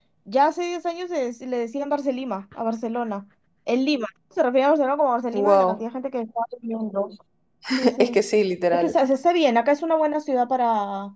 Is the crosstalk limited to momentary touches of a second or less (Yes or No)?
Yes